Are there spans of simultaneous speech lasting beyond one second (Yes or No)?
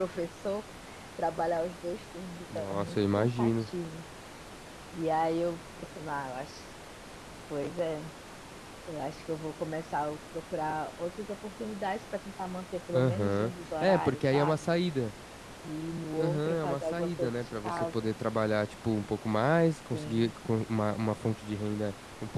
Yes